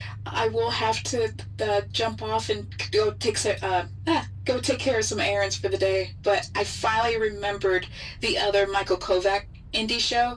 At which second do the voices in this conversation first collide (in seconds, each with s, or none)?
none